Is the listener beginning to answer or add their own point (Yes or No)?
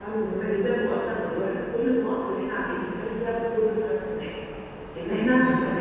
No